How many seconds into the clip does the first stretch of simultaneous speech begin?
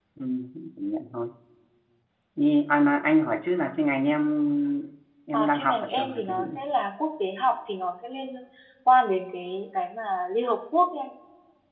5.3 s

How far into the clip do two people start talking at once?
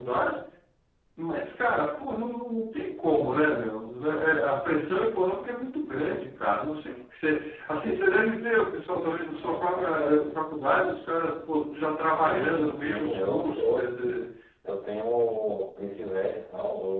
12.3 s

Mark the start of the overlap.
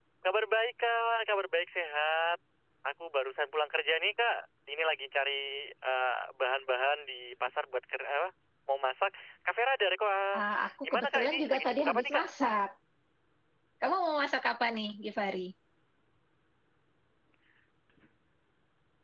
10.9 s

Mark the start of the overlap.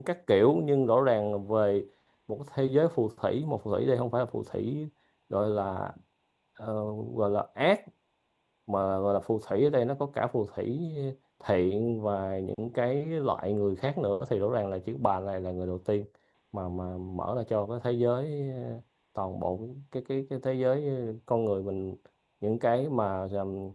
none

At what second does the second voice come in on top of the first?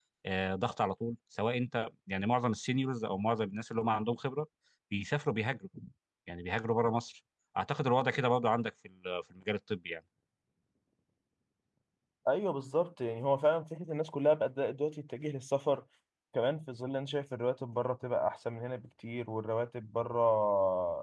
none

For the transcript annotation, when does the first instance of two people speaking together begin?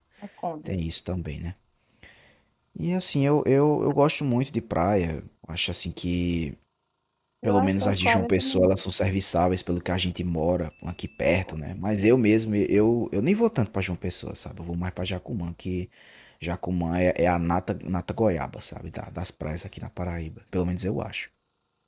7.4 s

